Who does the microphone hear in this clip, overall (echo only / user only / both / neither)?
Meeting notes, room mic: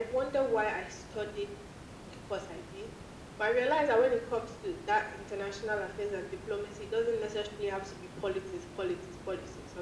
echo only